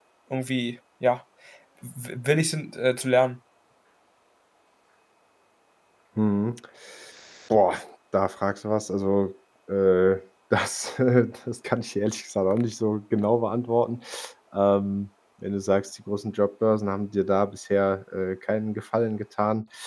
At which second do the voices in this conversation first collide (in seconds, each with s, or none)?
none